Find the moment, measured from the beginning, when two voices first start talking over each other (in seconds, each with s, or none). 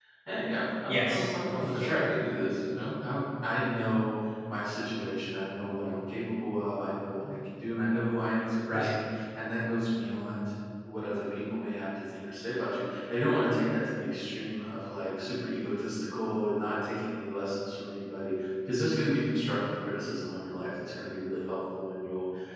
0.8 s